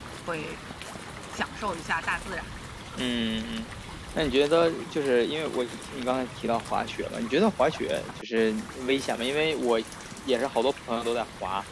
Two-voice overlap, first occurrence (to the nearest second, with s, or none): none